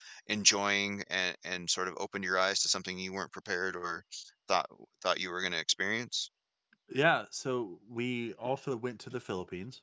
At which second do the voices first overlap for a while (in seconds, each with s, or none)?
none